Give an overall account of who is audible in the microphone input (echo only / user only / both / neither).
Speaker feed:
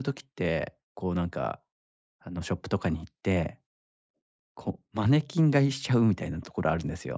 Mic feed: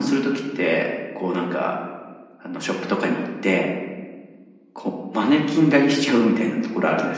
echo only